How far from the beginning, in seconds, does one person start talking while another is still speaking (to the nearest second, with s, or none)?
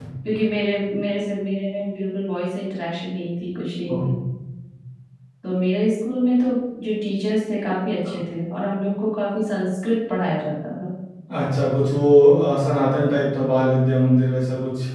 none